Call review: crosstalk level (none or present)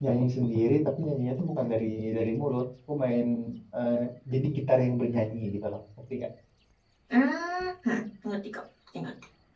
none